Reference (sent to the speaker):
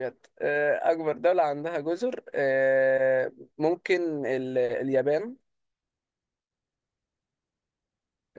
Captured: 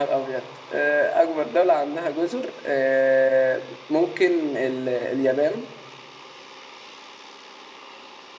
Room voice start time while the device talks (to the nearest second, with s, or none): none